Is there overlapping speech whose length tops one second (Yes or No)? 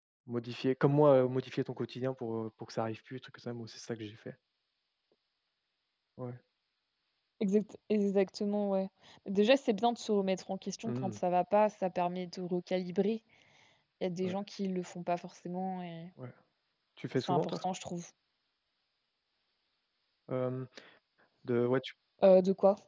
No